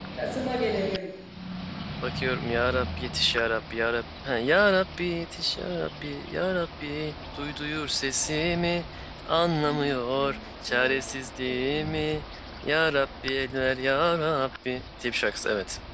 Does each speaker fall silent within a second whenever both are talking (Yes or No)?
Yes